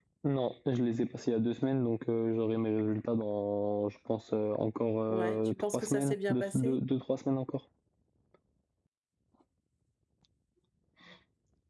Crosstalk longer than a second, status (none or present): present